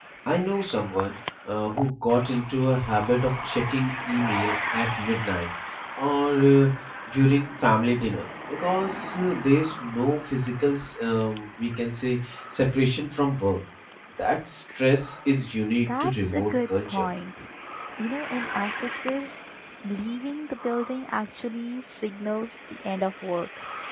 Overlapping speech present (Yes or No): Yes